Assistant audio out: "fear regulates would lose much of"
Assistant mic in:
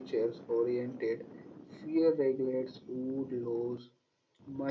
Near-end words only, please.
none

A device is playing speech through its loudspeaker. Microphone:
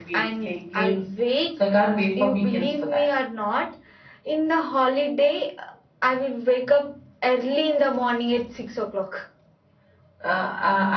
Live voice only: none

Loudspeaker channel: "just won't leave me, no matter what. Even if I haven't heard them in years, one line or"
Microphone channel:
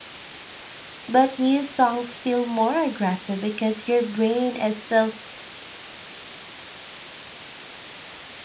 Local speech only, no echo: but new songs feel more aggressive because your brain is still

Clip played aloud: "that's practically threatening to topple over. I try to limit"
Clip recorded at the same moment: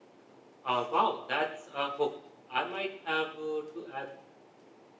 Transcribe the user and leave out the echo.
Uh, wow, that's a hook. I might have uh, to add

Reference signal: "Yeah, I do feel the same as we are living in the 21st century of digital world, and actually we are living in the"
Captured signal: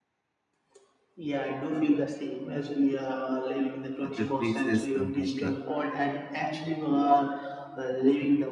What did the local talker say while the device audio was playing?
other places, and like uh,

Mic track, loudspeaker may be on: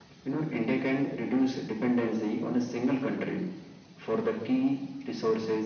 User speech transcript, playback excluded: none

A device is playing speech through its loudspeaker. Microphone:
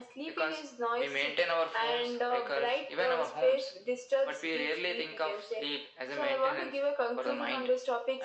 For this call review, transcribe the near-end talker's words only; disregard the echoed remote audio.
none

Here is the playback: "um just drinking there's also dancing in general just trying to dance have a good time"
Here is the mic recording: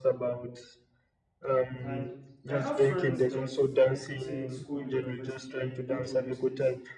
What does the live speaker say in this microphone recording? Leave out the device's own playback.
and I have friends that I could say in school, in university, they go to all those things,

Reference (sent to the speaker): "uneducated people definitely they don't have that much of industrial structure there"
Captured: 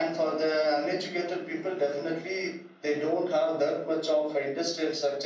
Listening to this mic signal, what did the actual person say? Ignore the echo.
none

